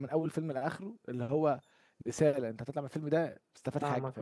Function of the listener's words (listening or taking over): taking over